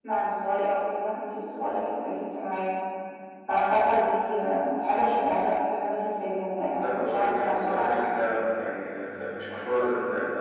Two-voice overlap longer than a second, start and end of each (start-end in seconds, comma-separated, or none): 6.8-8.1